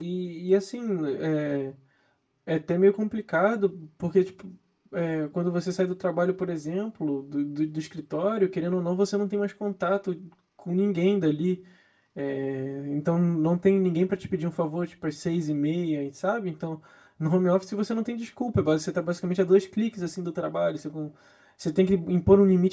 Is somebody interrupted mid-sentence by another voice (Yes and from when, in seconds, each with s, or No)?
No